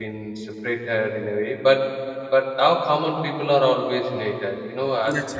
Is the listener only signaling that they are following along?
Yes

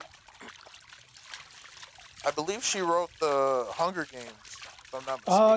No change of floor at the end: No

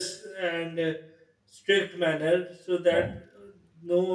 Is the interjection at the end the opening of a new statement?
No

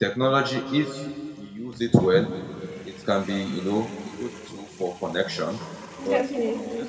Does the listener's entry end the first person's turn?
No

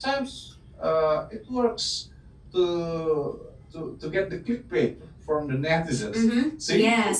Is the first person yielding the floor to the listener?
Yes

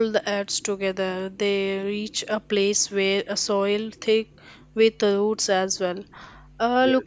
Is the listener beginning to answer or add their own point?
No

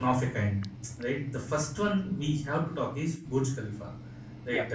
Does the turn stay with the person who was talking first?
Yes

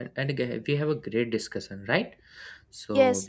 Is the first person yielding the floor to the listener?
Yes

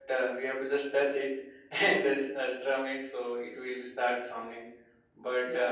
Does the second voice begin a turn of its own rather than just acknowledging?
No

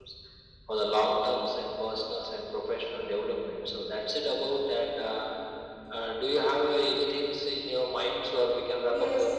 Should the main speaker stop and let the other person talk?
Yes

